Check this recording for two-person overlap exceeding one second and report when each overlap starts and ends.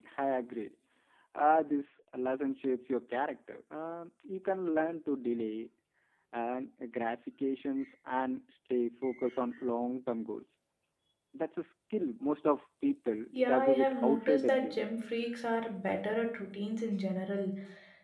13.5-14.8

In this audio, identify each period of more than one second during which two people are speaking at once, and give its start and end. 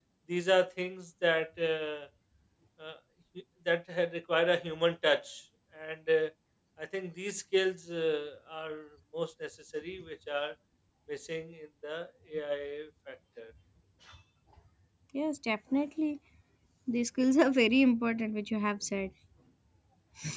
none

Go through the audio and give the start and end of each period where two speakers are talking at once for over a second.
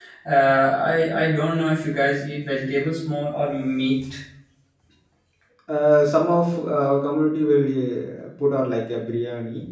none

